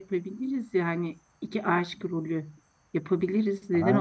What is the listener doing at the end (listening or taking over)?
taking over